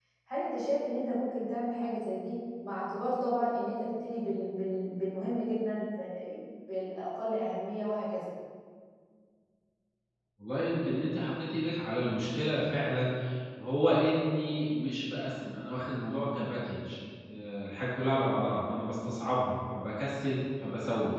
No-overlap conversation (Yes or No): Yes